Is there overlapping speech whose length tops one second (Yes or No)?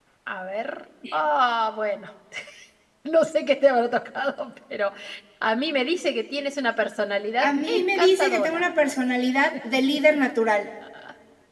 Yes